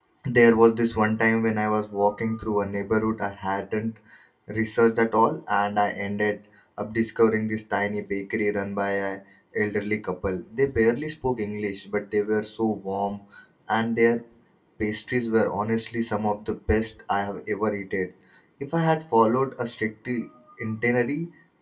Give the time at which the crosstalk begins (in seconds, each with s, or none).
none